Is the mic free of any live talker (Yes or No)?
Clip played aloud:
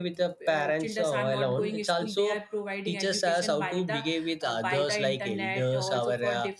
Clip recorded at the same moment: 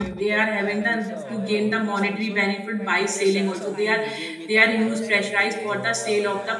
No